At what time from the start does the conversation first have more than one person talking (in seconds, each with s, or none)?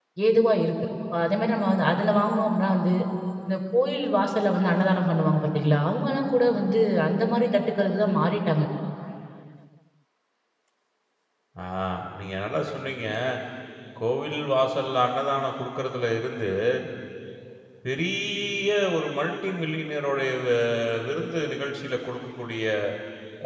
none